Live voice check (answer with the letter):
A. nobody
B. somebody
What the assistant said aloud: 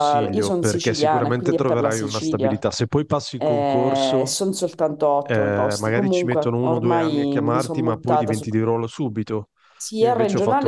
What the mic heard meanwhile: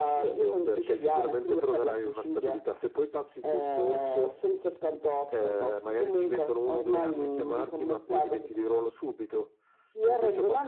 A